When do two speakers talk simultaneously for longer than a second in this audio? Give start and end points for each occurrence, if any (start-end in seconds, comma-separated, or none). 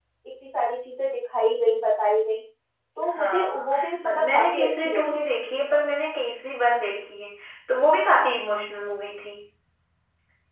3.2-5.2